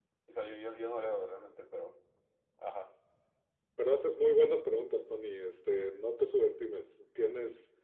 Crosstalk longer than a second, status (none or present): none